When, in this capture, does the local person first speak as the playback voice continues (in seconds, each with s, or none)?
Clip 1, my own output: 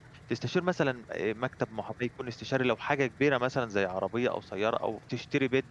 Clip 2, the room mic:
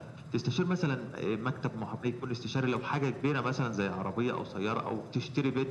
none